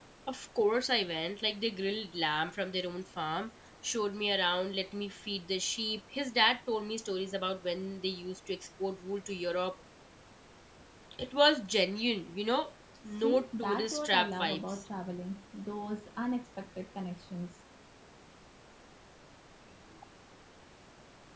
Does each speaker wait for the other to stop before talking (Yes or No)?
No